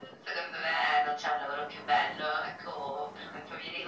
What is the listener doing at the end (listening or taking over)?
taking over